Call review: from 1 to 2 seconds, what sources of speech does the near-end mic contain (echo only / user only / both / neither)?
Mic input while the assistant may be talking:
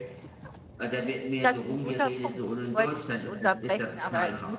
both